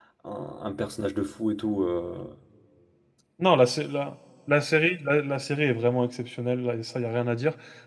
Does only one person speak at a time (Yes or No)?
Yes